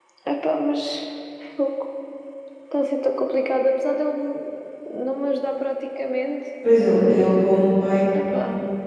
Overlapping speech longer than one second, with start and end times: none

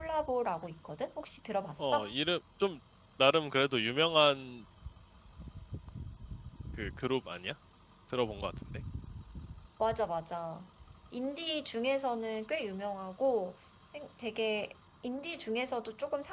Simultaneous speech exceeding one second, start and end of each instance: none

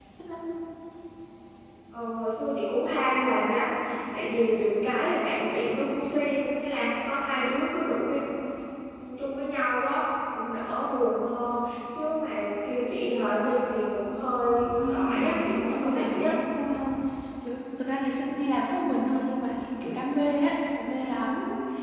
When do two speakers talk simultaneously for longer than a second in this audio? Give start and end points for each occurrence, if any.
14.7-16.3

